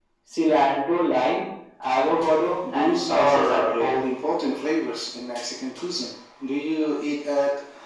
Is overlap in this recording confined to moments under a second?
No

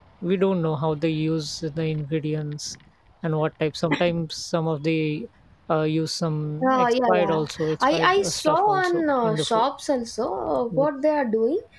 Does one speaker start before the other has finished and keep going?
Yes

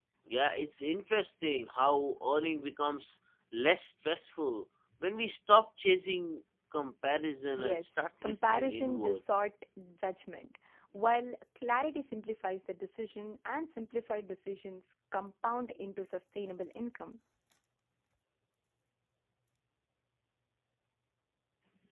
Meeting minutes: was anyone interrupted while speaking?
Yes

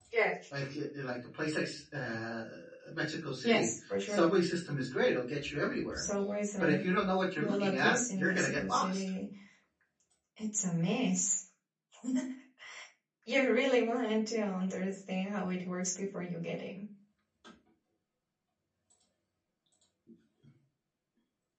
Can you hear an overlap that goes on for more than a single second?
Yes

